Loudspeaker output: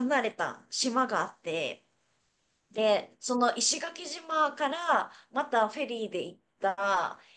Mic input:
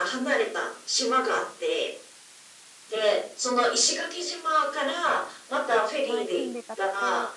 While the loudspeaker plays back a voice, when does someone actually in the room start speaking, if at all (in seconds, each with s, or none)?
6.0 s